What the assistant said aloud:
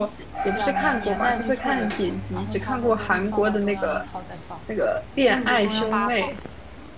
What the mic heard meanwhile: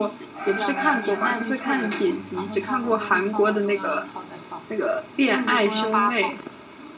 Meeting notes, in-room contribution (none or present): none